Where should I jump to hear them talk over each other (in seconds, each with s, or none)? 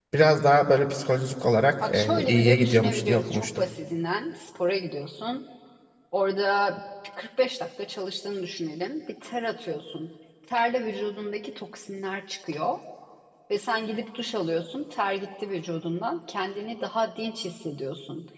1.8 s